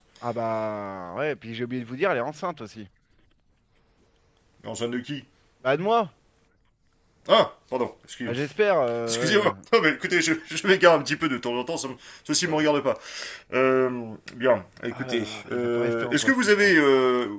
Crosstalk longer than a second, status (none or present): present